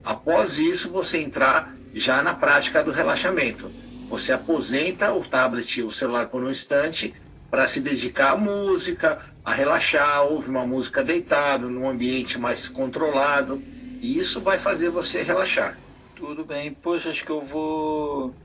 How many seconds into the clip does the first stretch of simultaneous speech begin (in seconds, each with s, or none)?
none